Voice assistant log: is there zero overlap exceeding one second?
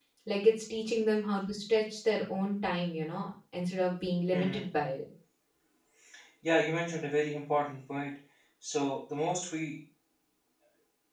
Yes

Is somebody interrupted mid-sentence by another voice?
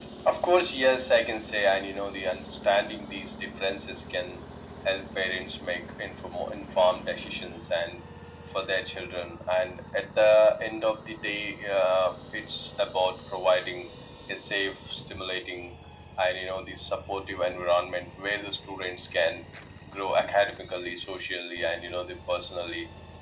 No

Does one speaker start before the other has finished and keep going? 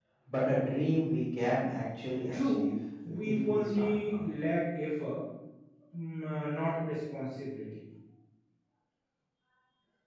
Yes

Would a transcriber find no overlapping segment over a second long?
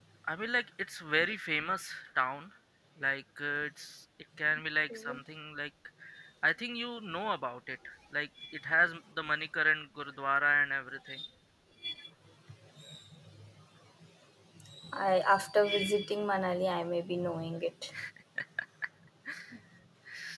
Yes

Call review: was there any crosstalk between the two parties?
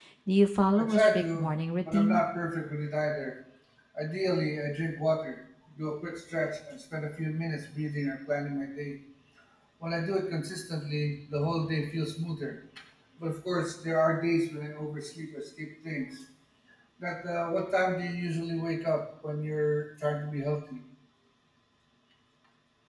Yes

